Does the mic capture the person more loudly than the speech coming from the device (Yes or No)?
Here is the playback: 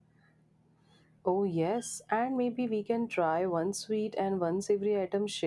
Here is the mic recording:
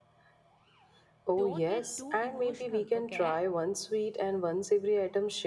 No